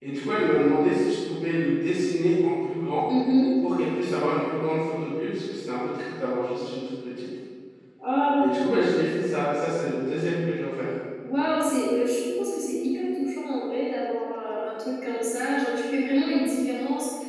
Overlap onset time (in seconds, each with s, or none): none